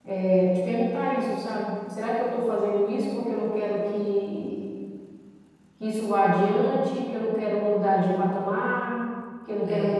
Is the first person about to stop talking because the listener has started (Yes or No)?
No